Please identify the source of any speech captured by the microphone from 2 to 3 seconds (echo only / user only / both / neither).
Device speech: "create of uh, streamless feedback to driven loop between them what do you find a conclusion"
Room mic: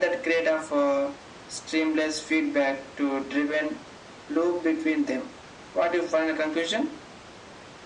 echo only